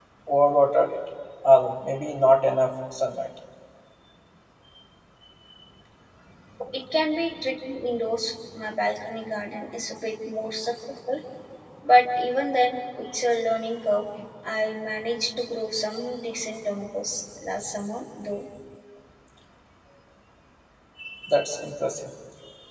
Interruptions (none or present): none